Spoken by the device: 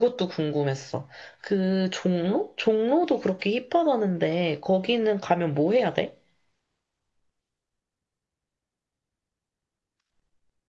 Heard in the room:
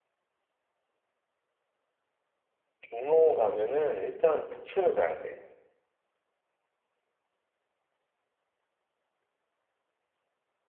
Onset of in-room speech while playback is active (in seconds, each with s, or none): 2.9 s